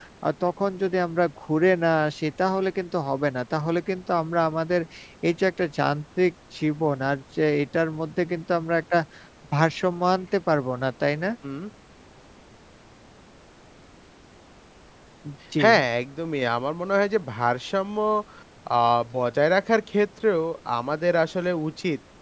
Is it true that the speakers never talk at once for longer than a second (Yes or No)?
Yes